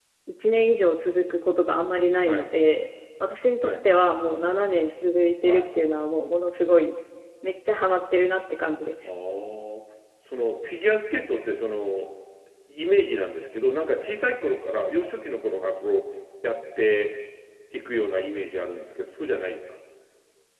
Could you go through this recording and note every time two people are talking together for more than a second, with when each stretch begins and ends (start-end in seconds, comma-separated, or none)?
none